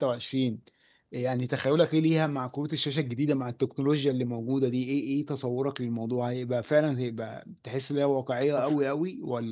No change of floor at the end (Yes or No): Yes